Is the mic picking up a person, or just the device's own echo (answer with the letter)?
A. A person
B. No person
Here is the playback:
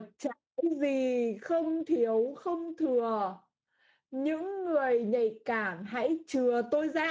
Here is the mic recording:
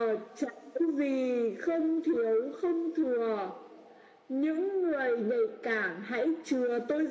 B